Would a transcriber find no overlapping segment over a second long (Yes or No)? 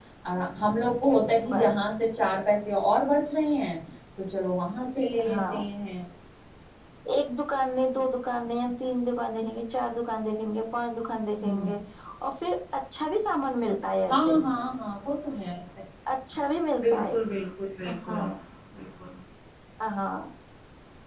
Yes